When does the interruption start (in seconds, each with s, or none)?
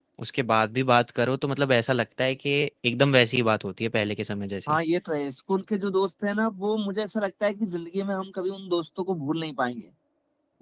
none